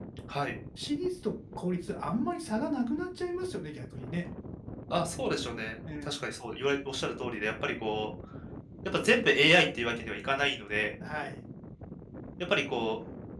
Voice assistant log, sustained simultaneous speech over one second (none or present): none